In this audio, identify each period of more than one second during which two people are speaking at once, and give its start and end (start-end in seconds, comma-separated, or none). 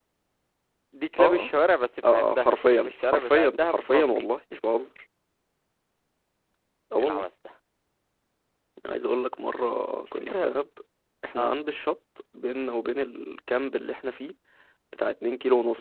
2.1-4.3